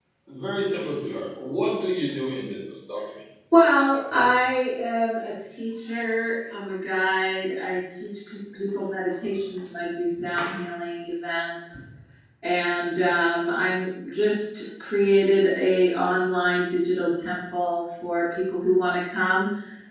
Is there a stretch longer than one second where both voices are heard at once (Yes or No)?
No